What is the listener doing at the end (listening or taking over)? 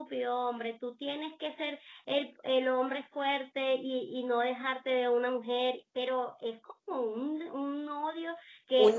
taking over